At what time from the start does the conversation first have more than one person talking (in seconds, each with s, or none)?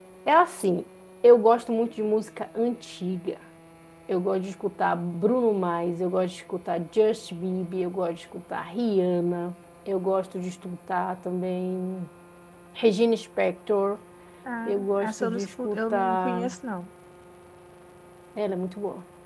14.6 s